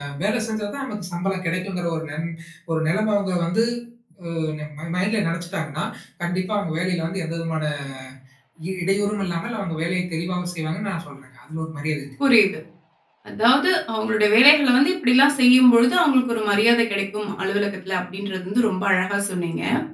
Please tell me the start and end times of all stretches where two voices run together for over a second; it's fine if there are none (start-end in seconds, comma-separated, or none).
none